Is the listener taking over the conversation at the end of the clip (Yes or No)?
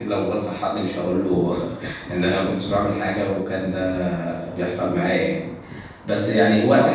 No